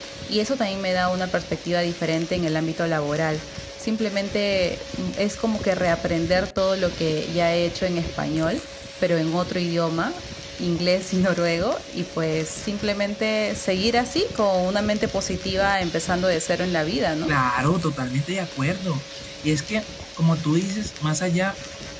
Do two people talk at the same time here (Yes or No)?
No